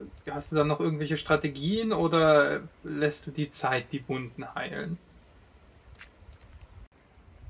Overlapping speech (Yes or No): No